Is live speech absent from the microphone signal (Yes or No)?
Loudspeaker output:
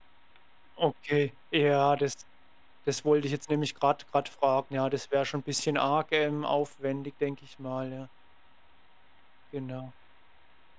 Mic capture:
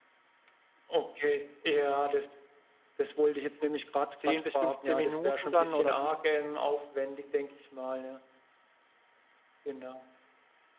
No